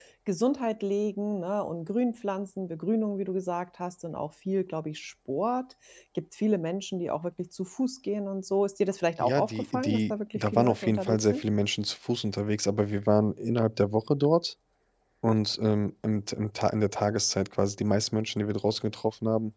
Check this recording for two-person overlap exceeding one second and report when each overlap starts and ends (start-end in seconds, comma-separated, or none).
9.2-11.4